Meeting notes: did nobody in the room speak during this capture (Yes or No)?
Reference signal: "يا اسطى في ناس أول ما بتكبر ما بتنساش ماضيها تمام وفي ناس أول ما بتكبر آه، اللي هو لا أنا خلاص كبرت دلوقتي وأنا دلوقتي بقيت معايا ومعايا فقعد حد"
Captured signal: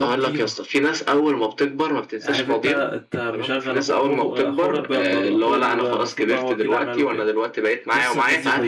No